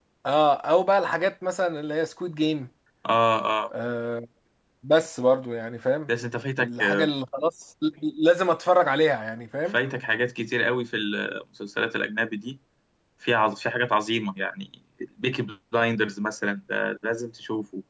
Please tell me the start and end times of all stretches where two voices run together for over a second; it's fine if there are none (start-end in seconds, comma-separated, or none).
none